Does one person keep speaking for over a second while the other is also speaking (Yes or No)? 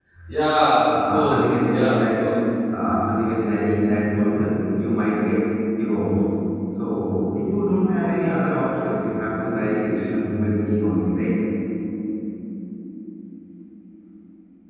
Yes